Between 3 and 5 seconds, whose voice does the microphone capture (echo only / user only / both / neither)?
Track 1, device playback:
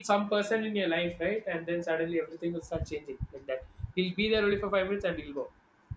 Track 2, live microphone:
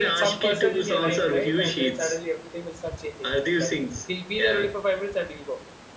both